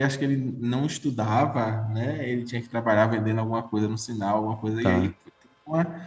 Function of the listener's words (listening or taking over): listening